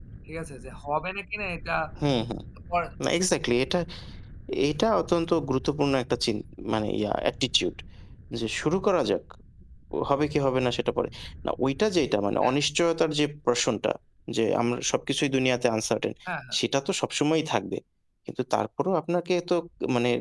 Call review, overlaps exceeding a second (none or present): none